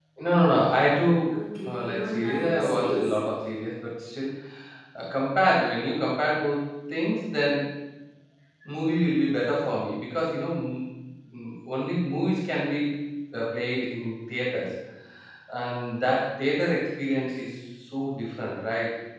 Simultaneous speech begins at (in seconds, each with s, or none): 1.7 s